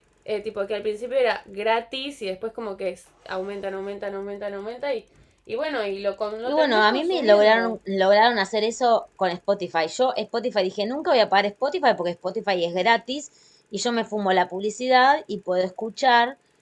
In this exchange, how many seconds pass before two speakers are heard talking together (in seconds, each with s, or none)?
6.5 s